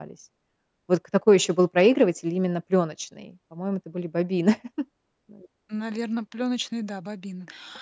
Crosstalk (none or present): none